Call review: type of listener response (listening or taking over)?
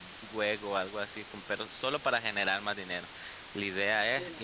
listening